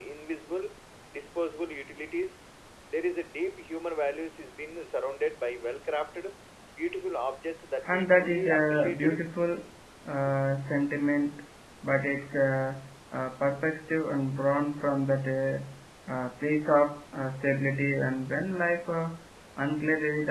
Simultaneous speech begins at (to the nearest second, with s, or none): 8 s